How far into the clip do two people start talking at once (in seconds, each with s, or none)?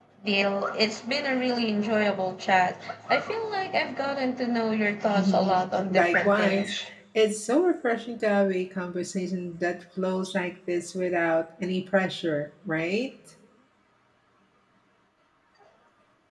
5.1 s